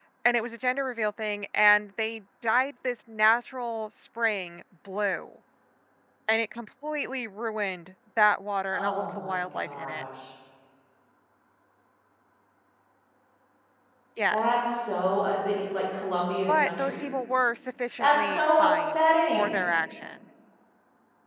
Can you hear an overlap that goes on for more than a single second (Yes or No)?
Yes